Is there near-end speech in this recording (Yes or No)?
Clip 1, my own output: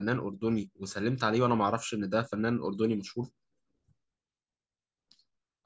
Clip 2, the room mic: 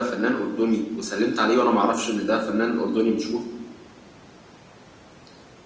No